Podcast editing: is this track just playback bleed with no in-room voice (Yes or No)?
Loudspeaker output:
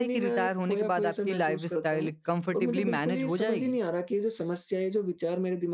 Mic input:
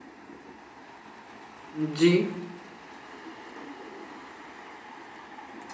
No